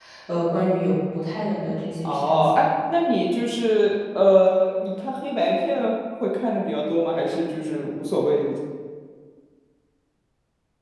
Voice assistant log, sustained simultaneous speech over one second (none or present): none